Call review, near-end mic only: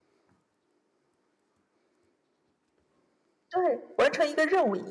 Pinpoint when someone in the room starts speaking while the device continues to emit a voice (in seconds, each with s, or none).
3.5 s